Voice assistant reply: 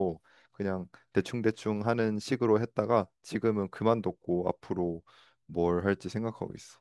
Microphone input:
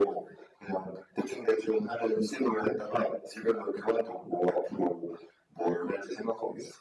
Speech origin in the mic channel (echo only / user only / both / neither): echo only